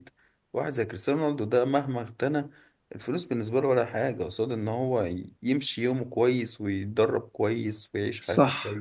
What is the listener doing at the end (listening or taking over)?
taking over